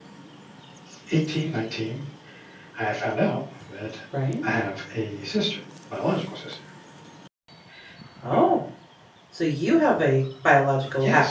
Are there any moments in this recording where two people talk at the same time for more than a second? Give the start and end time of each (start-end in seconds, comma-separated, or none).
none